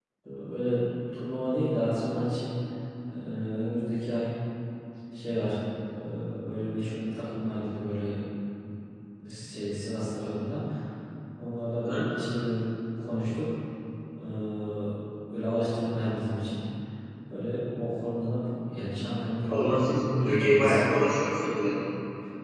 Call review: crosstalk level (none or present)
present